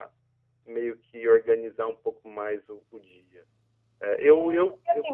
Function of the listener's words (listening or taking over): taking over